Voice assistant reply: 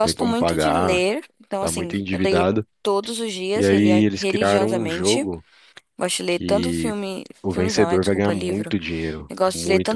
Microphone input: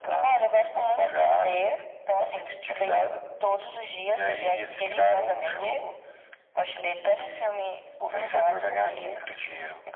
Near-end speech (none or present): none